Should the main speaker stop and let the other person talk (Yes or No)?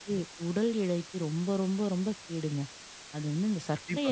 No